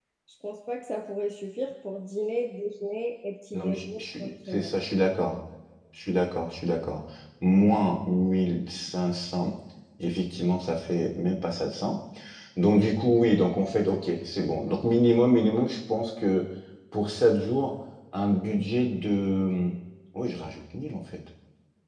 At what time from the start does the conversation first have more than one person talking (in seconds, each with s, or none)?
3.5 s